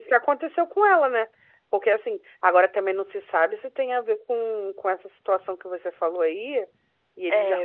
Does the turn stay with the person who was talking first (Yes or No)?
Yes